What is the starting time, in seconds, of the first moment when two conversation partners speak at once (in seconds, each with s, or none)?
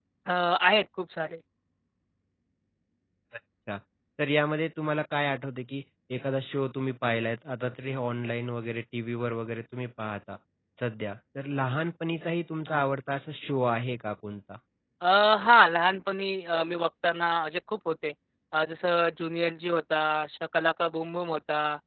none